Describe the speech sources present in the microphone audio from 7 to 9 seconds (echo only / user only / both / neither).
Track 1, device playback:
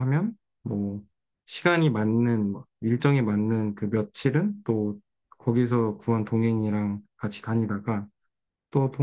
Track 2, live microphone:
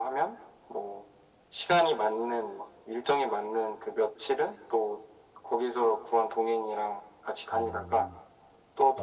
both